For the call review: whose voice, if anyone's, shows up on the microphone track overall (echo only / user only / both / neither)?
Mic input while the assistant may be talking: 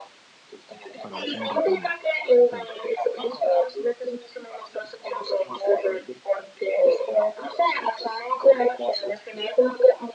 both